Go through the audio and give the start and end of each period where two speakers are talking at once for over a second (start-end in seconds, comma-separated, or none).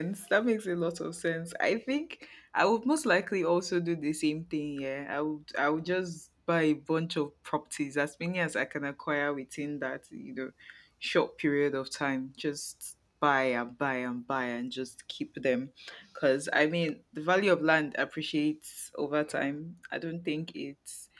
none